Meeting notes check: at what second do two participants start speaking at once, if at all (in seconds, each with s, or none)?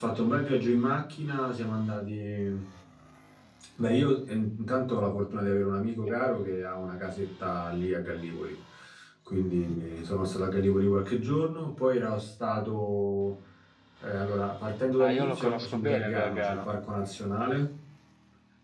15.0 s